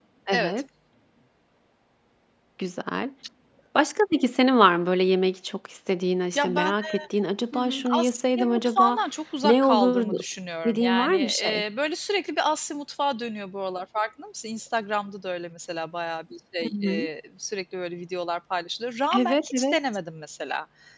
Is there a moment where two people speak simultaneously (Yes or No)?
Yes